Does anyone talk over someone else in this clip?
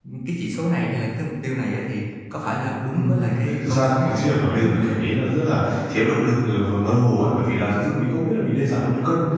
Yes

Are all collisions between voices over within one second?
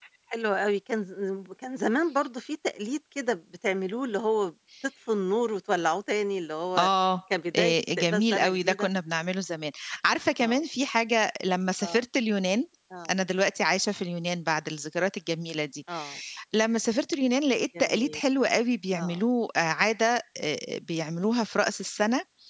No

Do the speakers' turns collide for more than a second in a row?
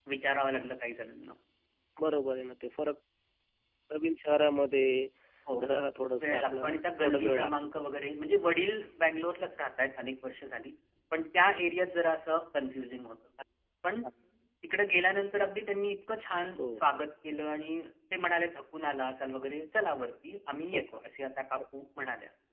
Yes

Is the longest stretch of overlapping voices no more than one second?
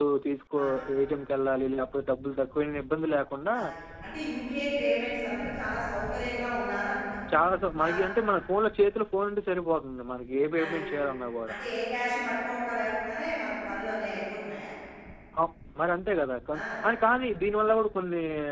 Yes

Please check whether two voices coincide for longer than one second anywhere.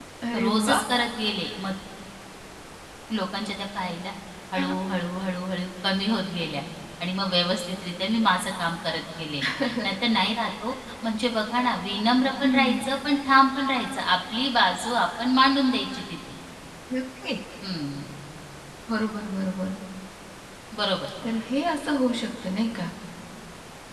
No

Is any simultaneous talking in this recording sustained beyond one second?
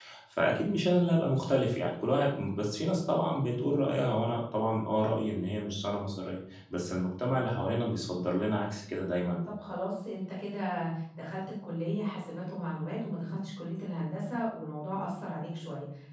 No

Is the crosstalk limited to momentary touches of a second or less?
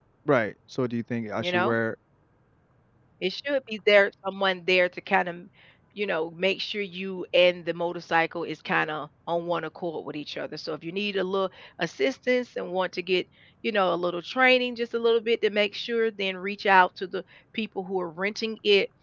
Yes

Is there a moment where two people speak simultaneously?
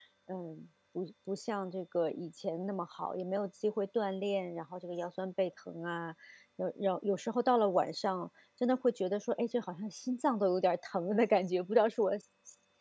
No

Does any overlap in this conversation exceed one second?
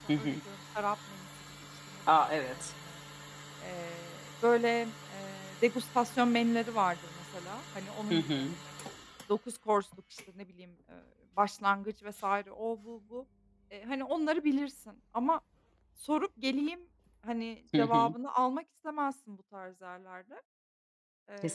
No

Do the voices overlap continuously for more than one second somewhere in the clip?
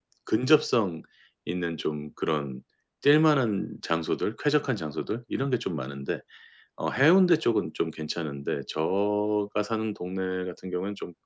No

